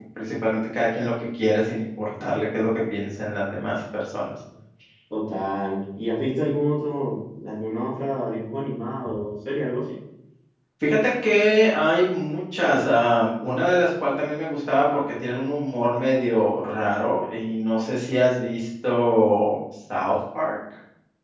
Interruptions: none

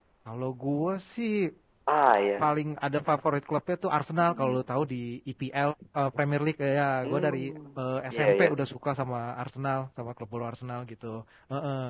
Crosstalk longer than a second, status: none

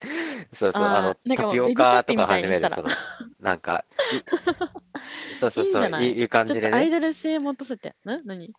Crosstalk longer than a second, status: present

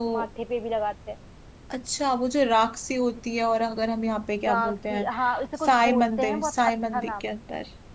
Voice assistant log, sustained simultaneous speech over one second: present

